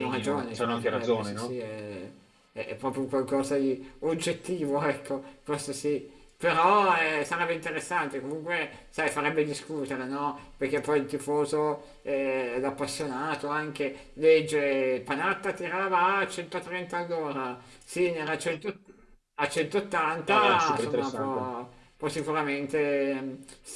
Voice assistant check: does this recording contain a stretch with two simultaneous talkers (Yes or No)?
Yes